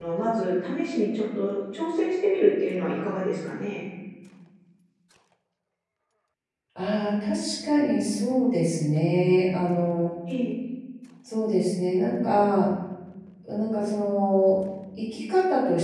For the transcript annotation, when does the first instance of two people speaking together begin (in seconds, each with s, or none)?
none